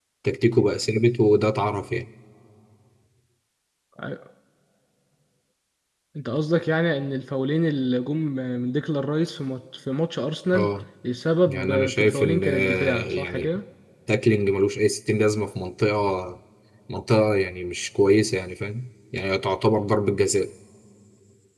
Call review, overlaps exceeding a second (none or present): present